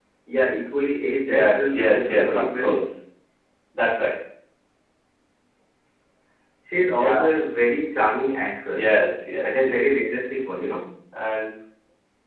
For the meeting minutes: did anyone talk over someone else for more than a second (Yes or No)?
Yes